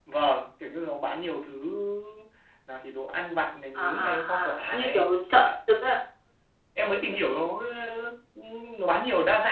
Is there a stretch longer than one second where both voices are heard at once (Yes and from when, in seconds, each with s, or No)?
Yes, from 3.8 s